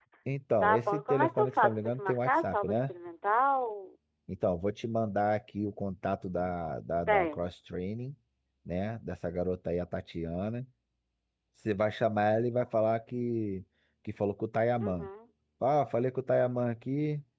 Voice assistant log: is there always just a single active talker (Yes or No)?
No